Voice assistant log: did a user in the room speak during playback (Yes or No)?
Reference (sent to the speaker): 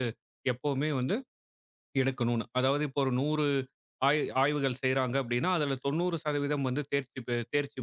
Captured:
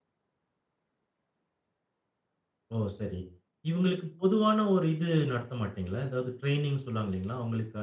Yes